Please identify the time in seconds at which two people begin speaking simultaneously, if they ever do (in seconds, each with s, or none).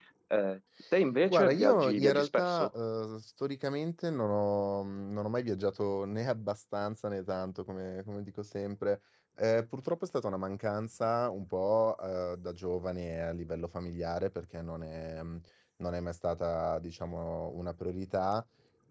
1.3 s